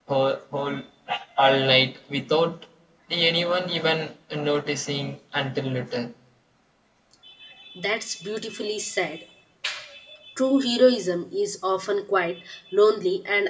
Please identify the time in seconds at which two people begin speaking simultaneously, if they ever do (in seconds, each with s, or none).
none